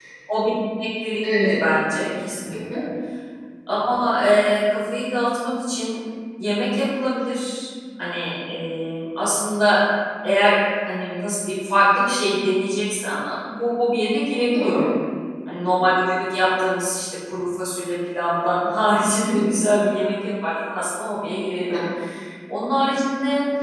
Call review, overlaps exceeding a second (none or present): none